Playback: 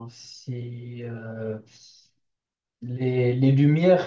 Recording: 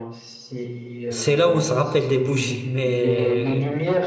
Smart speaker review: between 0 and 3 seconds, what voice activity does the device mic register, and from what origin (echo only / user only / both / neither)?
both